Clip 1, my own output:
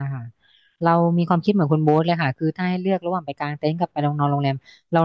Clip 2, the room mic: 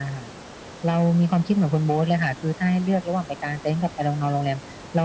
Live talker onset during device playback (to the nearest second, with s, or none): none